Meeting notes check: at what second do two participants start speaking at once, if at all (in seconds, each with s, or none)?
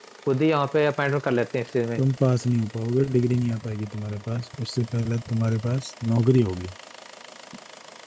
none